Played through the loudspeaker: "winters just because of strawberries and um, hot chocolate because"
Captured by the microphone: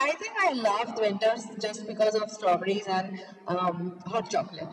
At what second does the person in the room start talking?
none

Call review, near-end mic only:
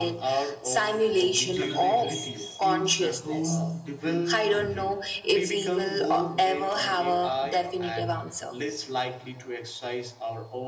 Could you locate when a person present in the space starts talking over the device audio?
1 s

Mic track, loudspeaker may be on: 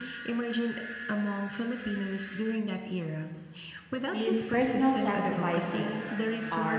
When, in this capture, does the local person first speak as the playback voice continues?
4 s

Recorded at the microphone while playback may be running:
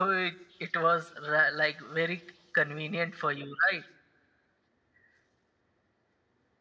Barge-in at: none

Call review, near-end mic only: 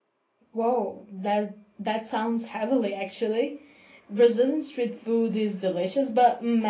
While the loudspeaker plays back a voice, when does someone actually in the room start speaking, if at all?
1 s

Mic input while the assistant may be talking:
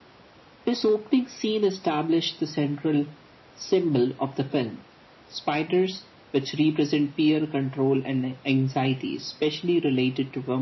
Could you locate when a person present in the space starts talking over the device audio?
none

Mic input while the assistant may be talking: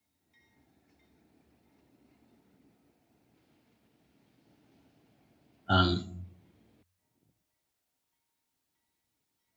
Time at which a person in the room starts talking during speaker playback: 6 s

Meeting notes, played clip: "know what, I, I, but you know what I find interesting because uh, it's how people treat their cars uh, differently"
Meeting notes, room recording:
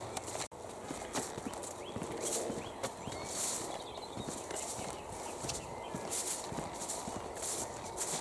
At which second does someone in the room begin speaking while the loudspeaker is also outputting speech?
none

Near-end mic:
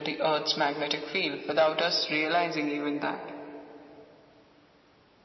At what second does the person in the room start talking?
none

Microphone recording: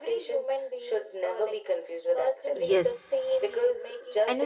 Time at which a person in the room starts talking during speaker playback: 3 s

